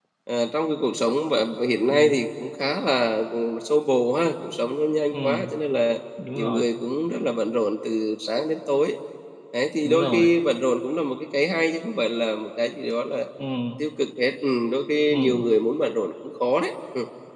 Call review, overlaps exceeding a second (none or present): none